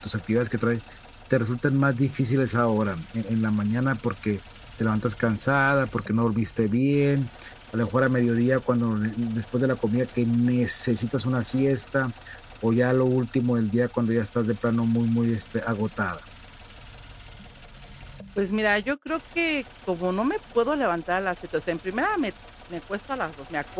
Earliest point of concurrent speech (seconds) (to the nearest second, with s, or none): none